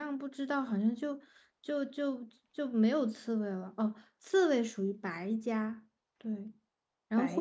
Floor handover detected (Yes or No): No